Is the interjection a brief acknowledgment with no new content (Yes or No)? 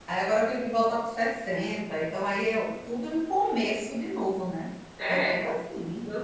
No